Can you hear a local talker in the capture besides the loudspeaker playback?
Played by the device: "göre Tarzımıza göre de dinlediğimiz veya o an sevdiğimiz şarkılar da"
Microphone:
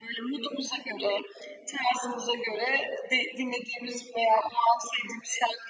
No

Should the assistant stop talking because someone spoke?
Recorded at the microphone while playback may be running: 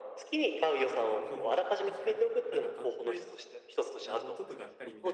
Yes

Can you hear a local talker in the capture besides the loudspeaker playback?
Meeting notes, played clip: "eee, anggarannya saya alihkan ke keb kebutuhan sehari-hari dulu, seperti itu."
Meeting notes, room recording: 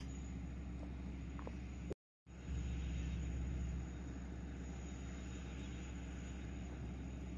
No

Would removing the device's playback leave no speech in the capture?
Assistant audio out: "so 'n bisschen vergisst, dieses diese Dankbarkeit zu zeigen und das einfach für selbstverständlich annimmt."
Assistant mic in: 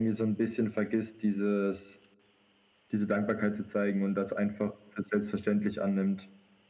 Yes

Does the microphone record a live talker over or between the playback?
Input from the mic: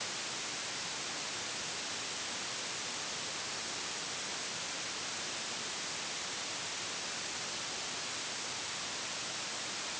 No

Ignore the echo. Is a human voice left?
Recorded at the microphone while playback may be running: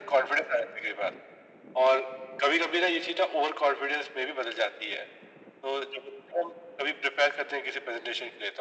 No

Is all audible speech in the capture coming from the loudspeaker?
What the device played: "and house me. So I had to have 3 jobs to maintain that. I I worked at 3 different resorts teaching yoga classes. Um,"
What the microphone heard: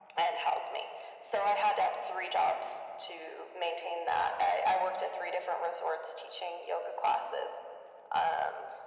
Yes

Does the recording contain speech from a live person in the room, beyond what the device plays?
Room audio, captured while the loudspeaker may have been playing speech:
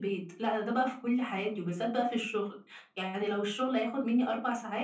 No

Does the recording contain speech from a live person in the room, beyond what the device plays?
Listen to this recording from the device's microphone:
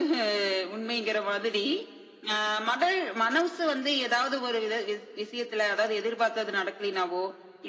No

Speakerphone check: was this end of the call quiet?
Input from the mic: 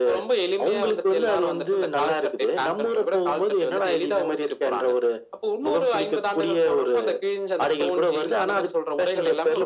Yes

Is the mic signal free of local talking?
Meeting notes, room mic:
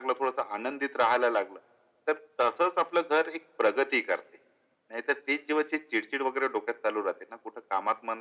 Yes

